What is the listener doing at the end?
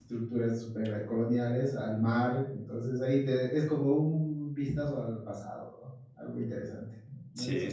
taking over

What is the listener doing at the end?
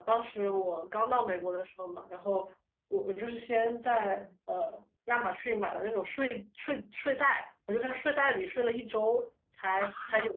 listening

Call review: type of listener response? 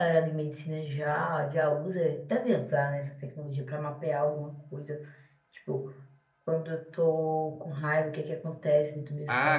taking over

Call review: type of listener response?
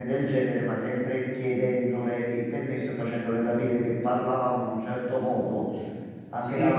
listening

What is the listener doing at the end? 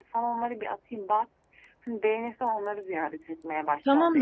taking over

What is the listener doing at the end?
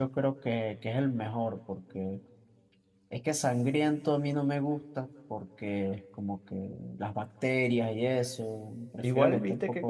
taking over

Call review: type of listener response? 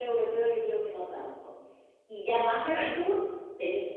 listening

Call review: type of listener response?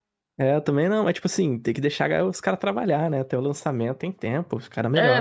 taking over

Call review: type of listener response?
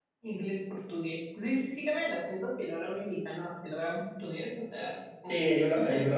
taking over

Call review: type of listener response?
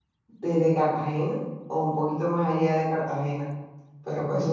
taking over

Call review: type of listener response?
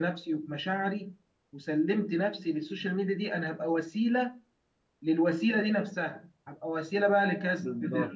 listening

